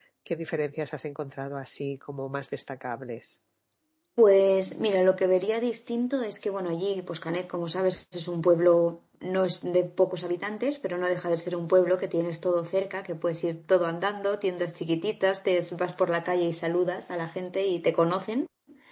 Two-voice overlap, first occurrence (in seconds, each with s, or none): none